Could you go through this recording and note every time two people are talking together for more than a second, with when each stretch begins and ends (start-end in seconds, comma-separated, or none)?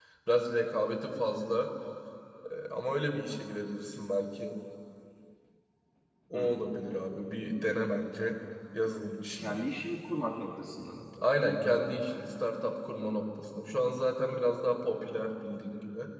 none